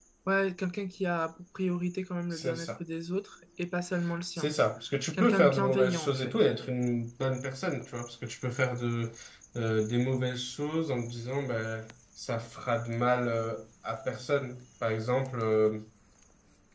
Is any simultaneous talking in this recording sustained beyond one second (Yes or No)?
Yes